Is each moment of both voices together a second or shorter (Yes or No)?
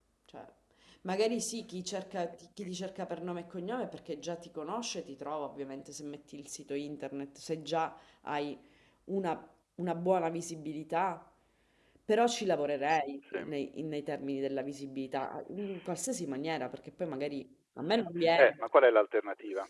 Yes